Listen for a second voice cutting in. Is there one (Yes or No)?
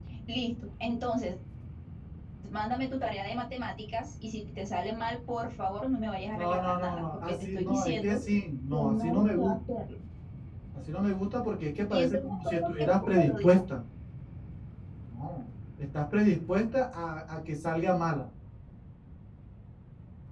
Yes